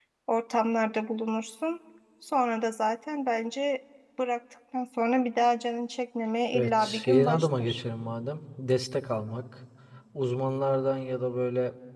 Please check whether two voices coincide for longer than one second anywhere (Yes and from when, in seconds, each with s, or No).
Yes, from 6.5 s